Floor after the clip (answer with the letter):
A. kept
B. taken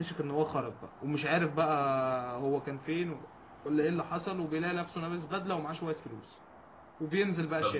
B